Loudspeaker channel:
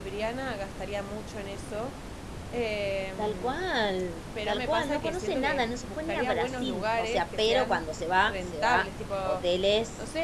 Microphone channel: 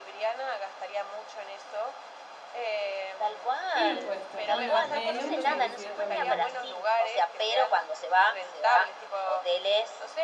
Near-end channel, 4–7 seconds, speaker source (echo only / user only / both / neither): both